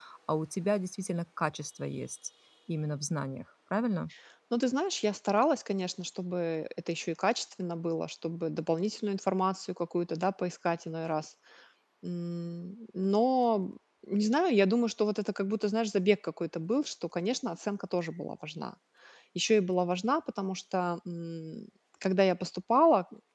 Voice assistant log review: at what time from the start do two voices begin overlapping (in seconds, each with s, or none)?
none